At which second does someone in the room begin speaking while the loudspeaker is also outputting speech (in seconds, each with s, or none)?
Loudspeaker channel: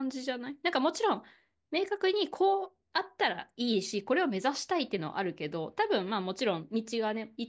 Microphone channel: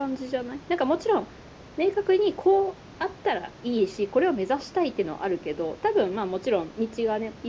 none